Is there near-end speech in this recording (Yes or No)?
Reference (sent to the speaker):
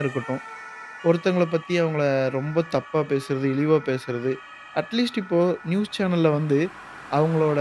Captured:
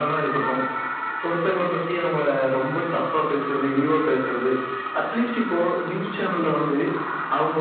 No